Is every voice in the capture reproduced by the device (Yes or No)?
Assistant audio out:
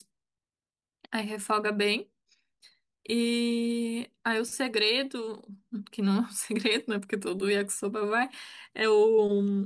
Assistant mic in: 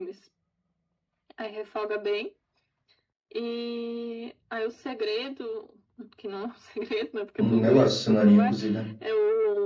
No